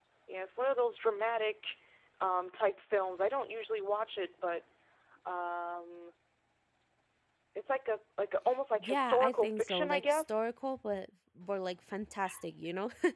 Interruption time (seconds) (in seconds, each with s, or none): 8.8 s